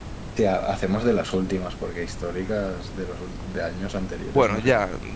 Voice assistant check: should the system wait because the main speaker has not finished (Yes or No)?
No